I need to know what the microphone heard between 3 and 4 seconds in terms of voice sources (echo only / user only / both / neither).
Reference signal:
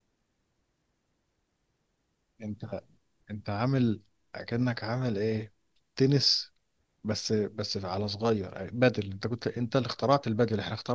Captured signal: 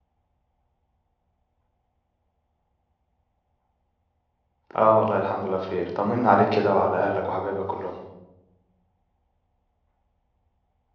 neither